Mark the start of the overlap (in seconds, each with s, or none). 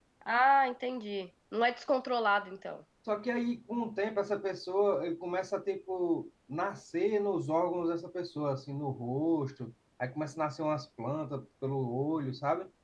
none